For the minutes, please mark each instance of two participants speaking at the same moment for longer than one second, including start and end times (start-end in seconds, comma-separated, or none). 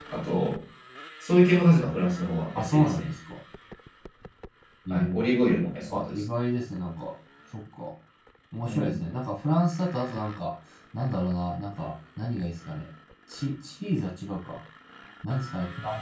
none